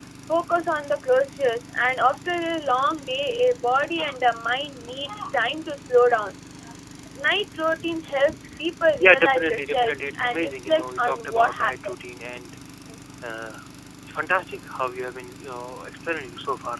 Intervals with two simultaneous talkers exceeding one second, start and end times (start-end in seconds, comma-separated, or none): 9.0-11.9